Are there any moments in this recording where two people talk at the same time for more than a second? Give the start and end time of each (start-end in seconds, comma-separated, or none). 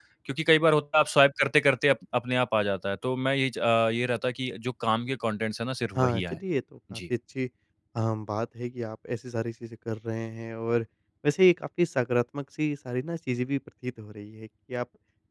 none